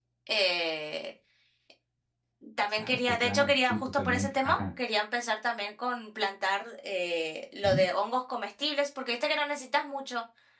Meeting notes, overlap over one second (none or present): present